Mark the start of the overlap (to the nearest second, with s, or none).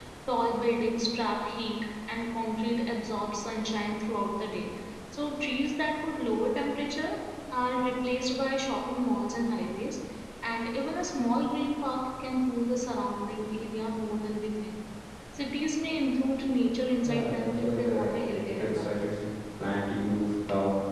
17 s